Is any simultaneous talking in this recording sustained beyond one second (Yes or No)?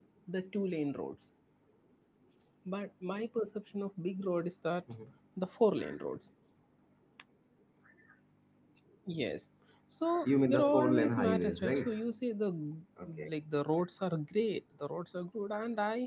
Yes